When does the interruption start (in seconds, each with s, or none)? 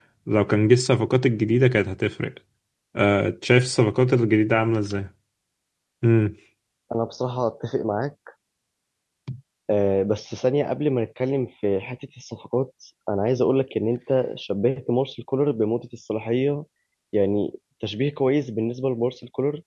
none